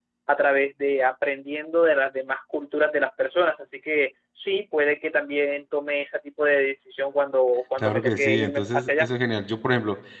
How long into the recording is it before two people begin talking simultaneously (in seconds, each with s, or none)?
7.8 s